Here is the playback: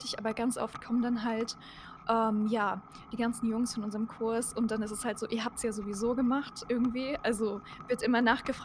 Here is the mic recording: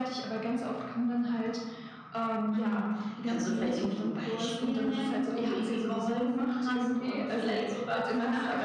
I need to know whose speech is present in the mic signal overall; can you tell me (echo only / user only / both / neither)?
both